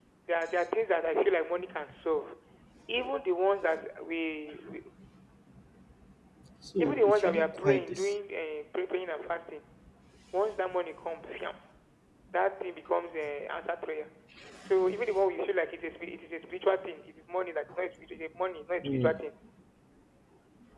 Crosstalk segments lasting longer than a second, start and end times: 6.8-8.1

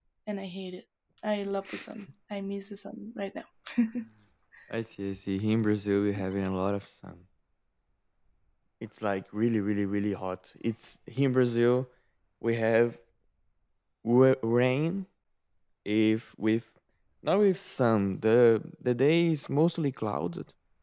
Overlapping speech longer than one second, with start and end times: none

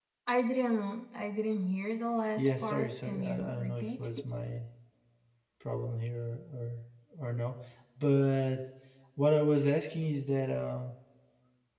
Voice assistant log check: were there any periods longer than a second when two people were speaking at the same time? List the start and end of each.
2.4-3.9

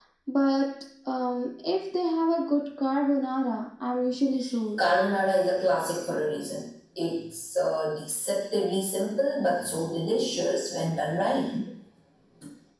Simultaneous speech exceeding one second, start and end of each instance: none

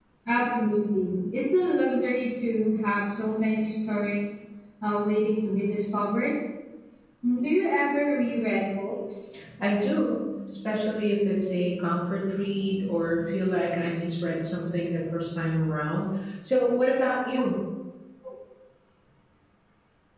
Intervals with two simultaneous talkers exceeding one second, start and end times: none

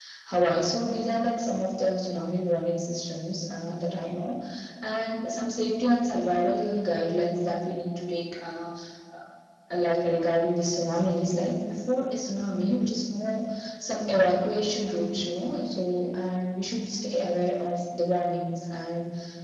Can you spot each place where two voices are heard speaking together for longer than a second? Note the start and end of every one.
none

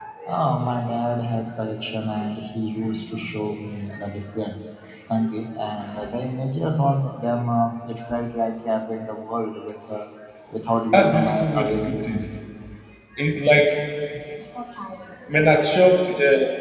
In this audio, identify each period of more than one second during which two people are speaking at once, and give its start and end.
10.9-12.1

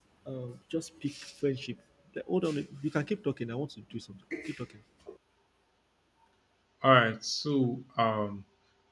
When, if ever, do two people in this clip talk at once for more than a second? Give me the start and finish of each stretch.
none

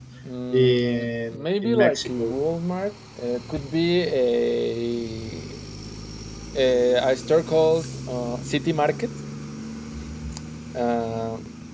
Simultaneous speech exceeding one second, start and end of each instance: 0.5-2.3

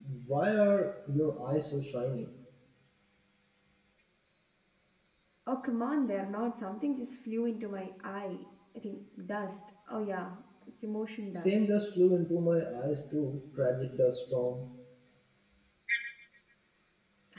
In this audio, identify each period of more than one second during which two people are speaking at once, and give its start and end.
none

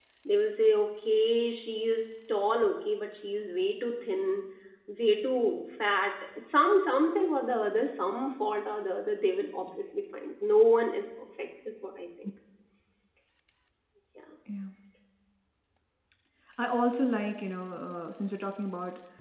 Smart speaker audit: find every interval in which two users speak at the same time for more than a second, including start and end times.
none

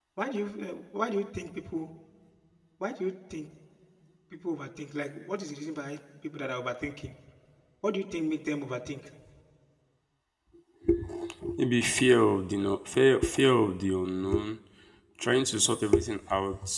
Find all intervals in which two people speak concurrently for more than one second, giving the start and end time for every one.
none

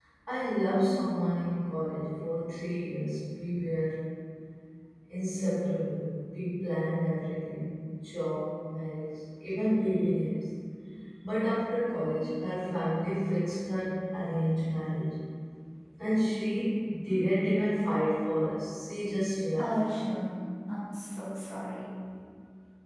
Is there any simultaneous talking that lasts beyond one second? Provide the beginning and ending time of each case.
none

